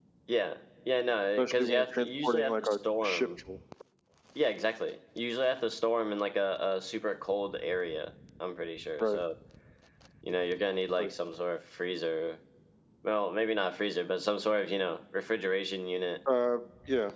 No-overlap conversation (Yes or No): No